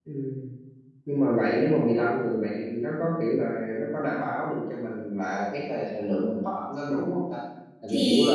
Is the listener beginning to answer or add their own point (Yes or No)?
No